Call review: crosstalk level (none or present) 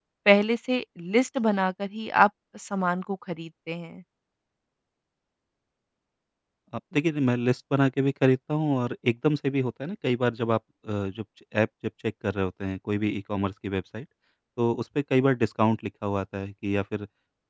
none